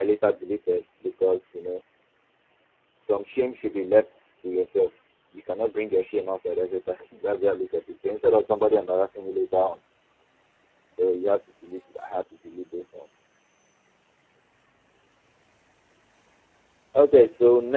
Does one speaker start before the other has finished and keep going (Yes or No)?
No